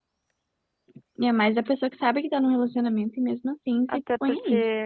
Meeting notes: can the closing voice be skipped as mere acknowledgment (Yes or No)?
No